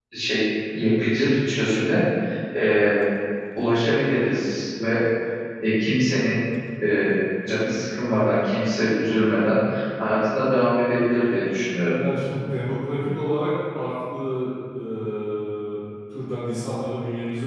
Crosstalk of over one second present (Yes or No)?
No